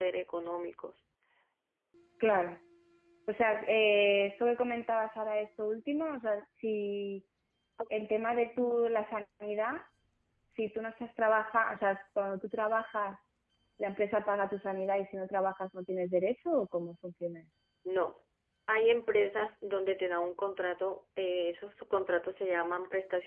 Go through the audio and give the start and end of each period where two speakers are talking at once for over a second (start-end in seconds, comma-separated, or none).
none